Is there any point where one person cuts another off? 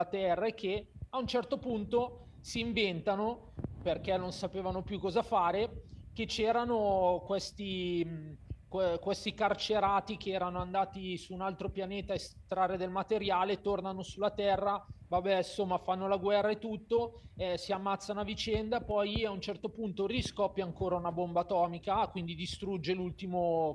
No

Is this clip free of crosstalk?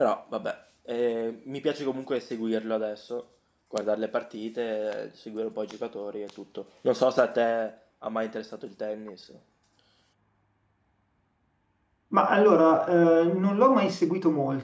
Yes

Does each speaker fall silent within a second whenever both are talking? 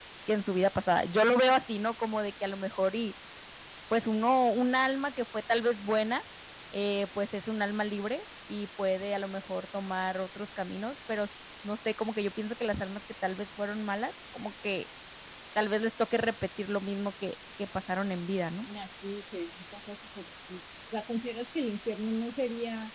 Yes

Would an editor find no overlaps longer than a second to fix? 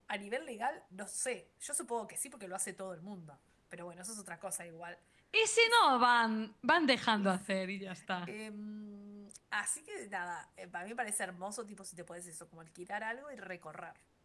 Yes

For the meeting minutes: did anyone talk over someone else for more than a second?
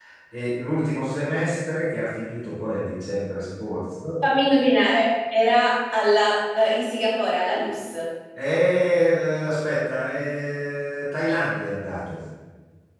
No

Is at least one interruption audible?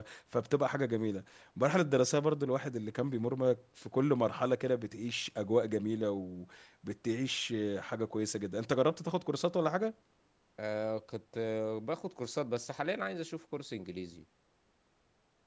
No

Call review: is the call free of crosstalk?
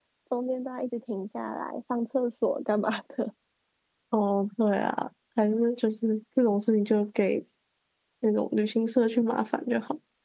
Yes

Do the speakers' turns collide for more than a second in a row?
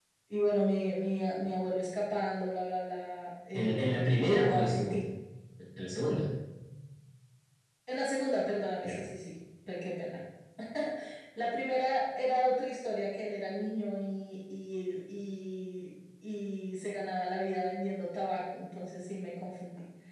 Yes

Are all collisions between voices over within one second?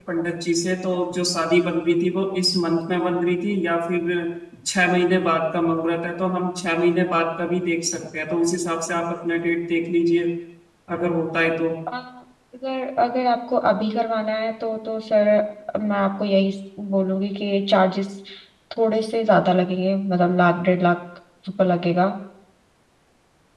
Yes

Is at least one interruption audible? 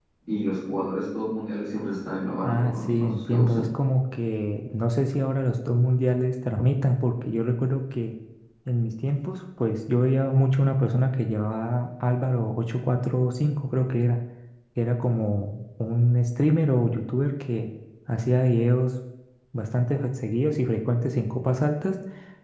Yes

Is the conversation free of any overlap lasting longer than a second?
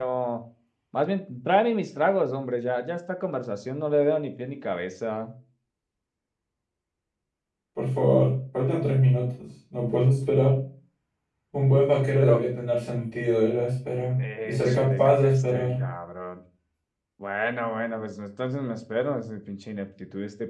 No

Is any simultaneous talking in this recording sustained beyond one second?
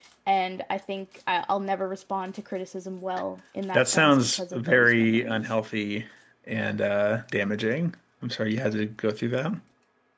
Yes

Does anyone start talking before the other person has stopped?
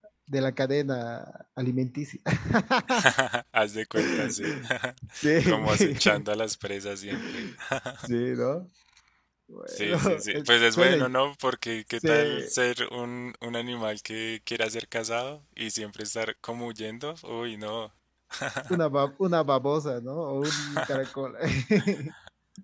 Yes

